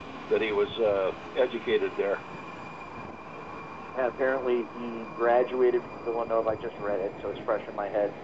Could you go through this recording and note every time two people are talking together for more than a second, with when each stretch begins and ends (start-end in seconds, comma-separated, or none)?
none